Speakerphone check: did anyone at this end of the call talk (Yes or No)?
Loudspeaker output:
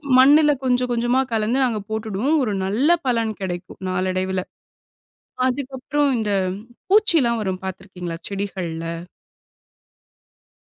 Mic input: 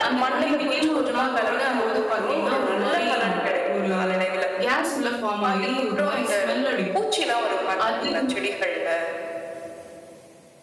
Yes